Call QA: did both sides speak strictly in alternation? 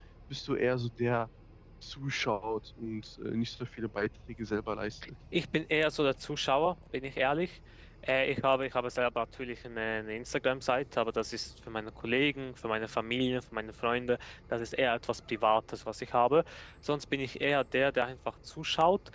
Yes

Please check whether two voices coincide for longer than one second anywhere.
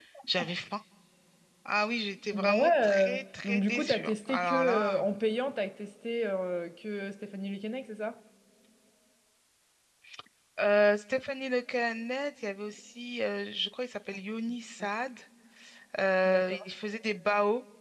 Yes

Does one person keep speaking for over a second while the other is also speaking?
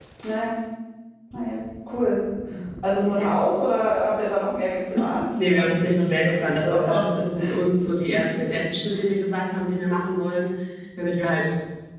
Yes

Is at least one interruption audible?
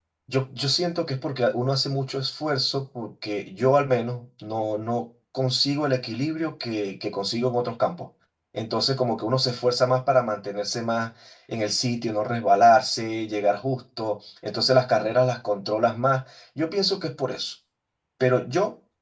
No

